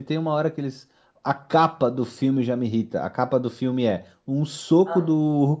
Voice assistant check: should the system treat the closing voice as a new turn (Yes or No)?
No